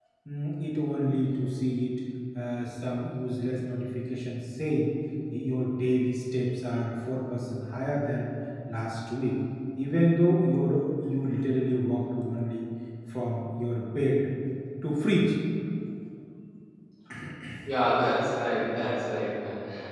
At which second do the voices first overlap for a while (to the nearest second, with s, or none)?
none